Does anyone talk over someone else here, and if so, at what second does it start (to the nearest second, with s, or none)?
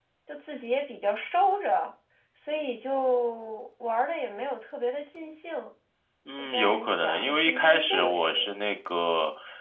6 s